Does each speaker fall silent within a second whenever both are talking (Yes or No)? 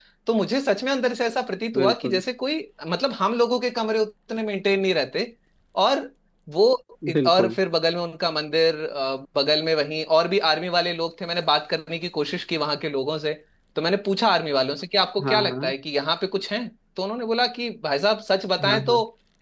Yes